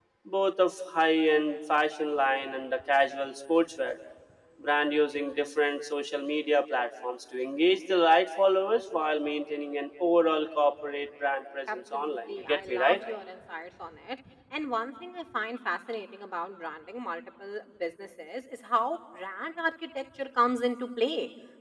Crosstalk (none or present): present